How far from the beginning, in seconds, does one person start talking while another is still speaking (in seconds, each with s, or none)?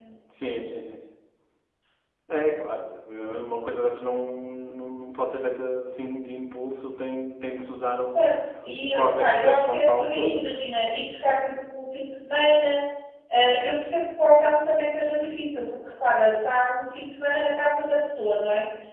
8.8 s